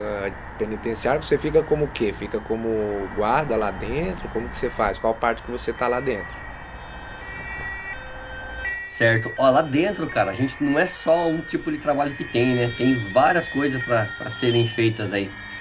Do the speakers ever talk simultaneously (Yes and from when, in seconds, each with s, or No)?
No